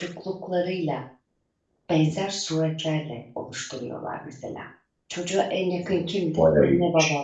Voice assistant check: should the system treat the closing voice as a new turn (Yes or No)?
No